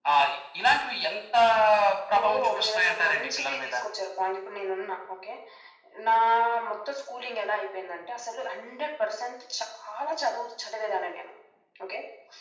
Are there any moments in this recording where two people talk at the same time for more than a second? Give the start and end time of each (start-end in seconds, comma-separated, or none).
2.2-3.8